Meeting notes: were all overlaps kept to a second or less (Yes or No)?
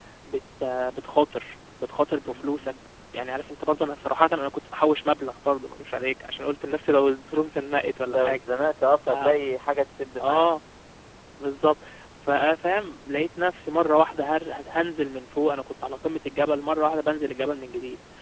Yes